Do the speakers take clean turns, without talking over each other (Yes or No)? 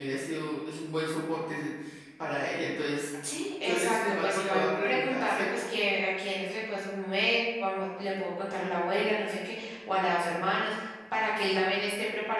No